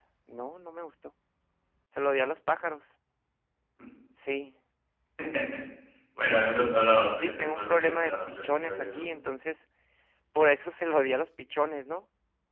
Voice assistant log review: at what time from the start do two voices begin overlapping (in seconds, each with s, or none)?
7.2 s